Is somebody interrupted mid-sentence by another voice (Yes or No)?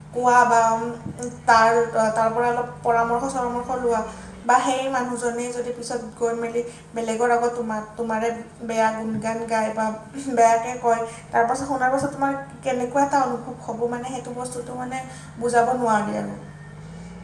No